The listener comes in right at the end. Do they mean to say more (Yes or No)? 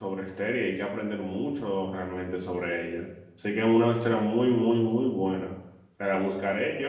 No